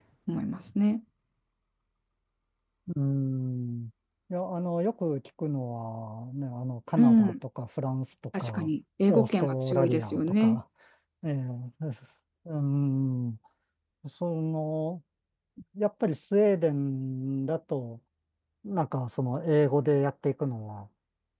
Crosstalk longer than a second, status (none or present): present